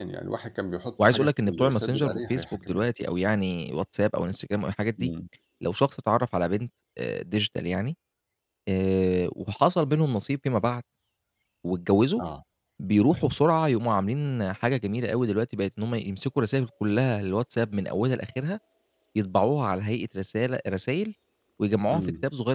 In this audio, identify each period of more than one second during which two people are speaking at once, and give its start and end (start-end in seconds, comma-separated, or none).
1.0-2.9